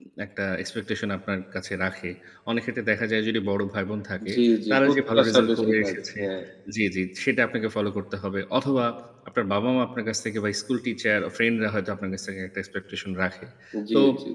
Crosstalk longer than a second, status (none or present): present